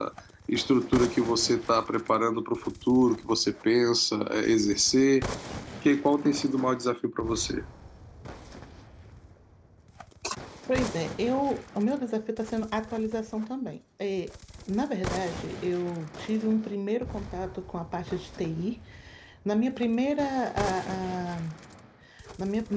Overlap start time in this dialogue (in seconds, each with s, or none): none